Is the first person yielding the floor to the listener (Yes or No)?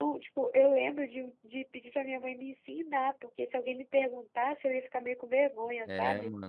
Yes